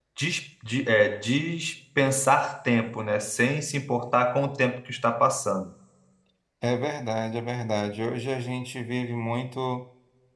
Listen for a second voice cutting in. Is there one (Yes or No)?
No